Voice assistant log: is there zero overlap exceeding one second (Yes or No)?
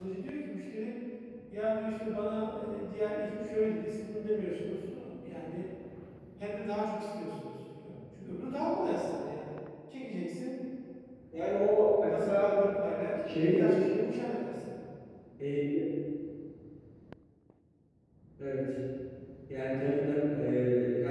Yes